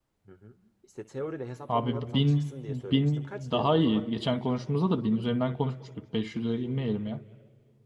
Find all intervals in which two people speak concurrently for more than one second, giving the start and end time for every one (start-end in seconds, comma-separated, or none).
1.7-4.0